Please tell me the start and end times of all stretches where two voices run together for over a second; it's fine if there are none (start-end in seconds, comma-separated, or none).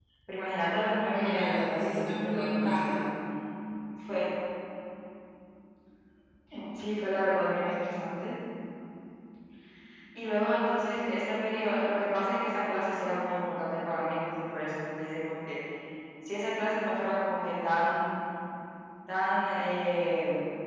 1.1-3.0